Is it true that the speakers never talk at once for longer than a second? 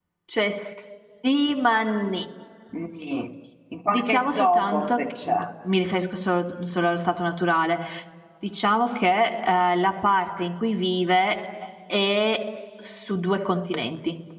No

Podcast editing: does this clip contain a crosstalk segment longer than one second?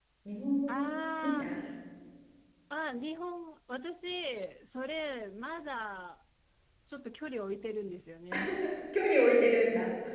No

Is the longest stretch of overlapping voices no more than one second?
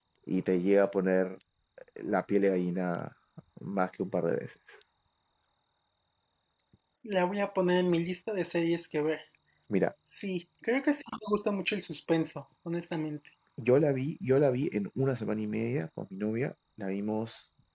Yes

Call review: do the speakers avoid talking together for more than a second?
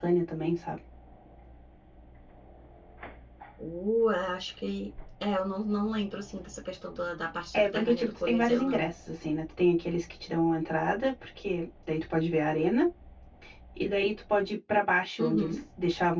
No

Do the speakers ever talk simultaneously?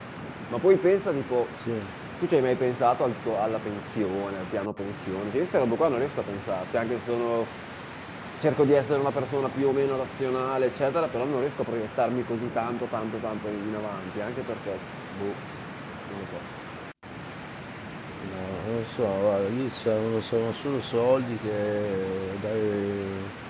No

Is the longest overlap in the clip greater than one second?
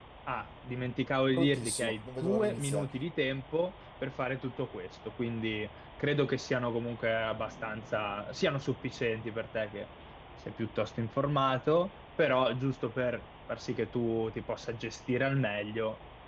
Yes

